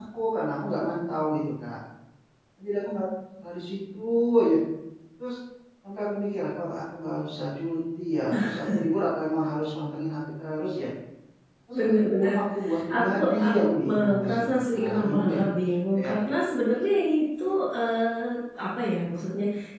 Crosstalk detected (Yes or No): Yes